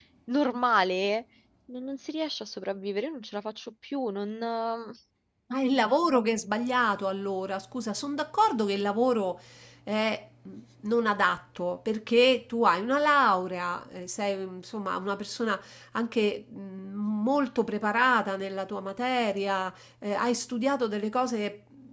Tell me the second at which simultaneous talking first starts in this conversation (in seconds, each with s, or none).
none